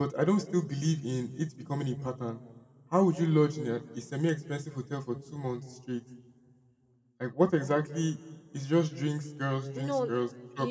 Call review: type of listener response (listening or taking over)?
taking over